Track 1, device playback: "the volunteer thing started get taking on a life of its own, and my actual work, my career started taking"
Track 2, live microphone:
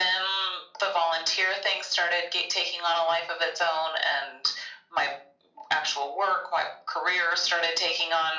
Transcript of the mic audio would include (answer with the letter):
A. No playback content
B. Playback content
B